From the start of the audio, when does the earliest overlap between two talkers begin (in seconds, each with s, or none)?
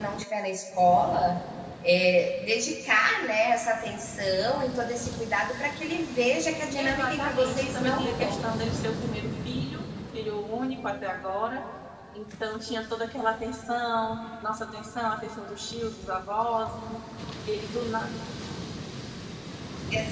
6.8 s